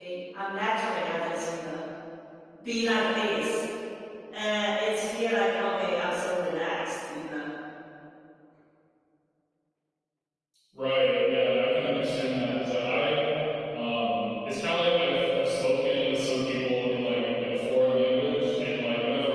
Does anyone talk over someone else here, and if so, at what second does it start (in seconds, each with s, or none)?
none